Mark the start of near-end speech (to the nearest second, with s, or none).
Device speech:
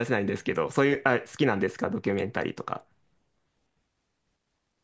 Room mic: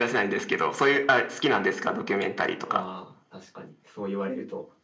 3 s